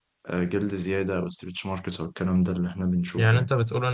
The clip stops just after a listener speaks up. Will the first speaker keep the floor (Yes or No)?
No